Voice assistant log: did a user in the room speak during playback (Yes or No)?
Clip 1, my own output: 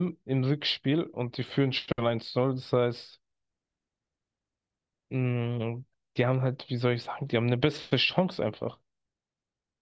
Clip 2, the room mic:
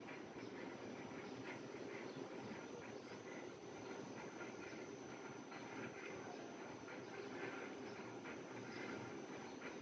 No